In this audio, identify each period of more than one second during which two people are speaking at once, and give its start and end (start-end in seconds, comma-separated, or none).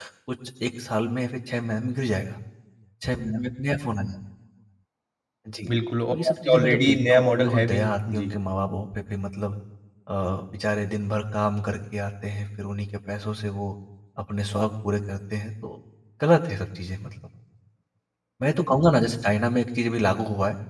6.1-8.3